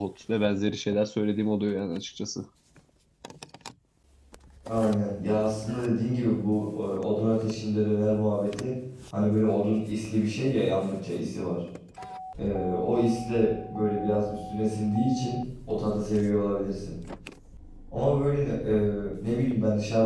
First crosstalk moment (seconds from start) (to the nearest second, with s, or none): none